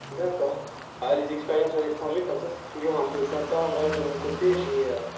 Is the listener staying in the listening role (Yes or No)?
Yes